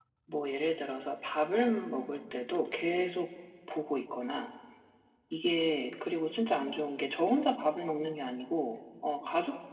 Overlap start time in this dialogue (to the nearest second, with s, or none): none